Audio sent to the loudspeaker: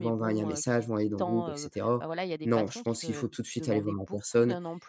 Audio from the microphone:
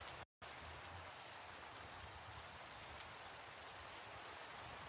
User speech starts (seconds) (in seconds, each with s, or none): none